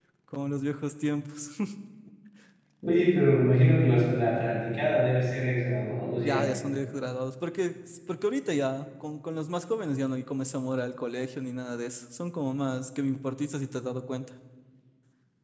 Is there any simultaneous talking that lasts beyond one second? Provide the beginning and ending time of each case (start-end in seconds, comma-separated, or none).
none